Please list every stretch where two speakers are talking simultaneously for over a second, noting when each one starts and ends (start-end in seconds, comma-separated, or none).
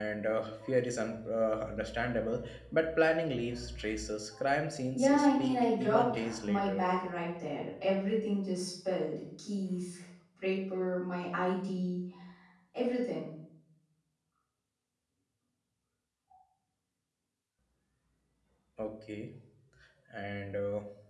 4.9-6.8